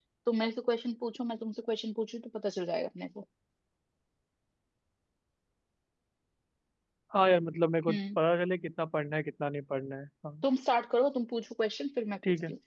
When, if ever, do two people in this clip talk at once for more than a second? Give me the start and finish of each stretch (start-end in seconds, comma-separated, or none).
none